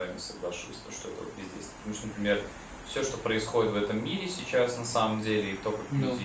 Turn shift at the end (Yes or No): No